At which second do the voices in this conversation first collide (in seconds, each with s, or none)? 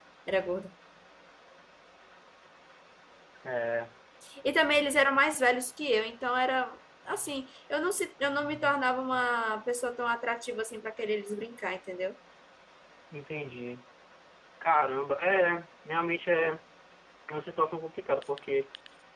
none